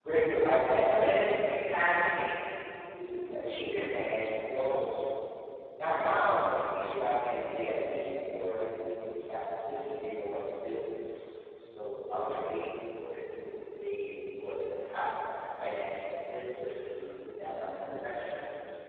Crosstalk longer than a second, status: none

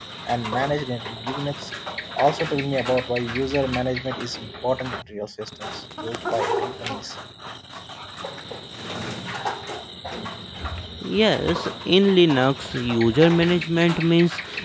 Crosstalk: none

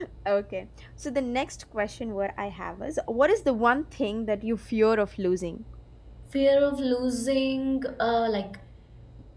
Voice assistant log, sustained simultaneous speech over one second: none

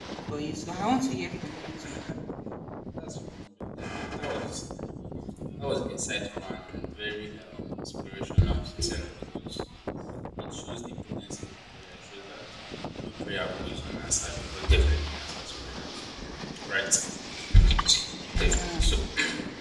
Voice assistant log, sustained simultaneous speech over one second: none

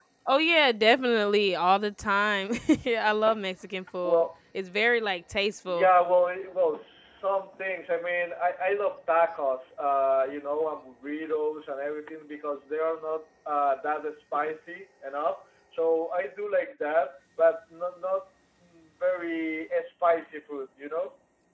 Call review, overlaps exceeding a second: none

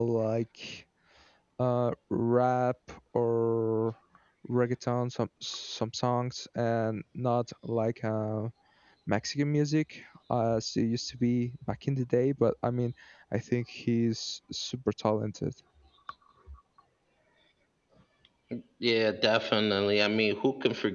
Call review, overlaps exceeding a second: none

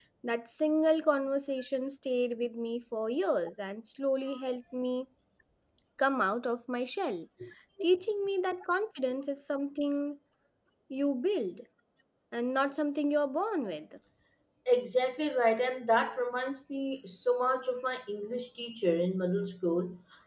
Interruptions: none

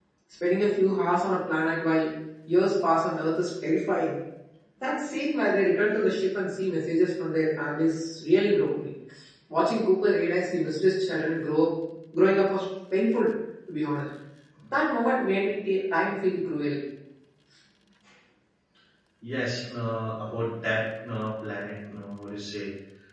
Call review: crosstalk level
none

